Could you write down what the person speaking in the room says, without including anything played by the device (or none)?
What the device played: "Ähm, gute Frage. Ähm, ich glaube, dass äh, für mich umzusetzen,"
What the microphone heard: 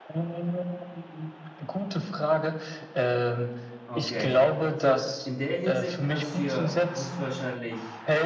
Okay. So, in der Hinsicht kannst du ja höchstwahrscheinlich